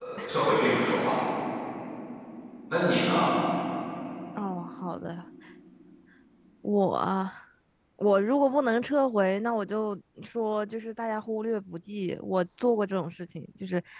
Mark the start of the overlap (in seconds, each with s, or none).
none